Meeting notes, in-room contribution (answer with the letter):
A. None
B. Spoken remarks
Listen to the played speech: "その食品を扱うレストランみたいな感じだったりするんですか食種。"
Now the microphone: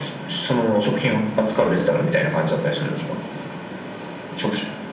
A